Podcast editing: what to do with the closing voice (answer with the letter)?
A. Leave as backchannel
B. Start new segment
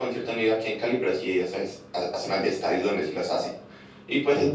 A